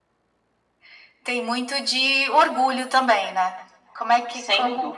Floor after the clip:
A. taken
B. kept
A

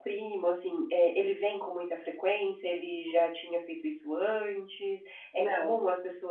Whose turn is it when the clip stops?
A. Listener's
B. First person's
B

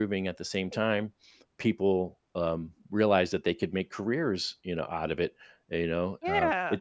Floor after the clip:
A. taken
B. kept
B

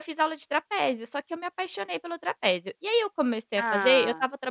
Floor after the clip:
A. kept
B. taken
A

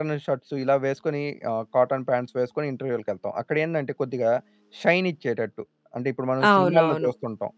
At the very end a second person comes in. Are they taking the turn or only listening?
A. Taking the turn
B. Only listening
A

